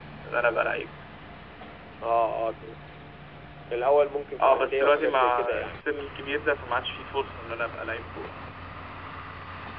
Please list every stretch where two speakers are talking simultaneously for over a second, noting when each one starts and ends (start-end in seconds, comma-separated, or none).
4.5-5.7